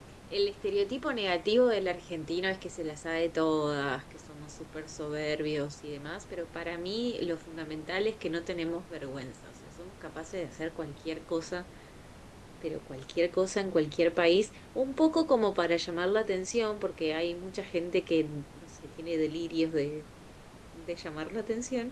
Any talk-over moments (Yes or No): No